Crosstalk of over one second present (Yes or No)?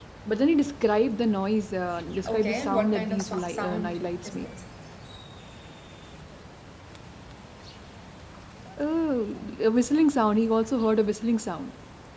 Yes